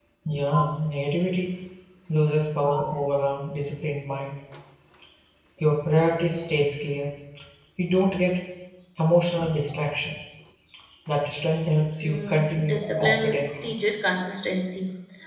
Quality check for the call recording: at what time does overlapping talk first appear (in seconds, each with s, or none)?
12.0 s